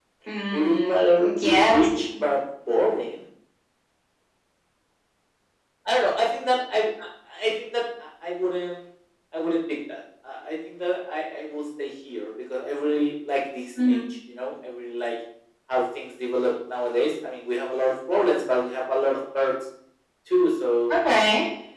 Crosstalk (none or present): present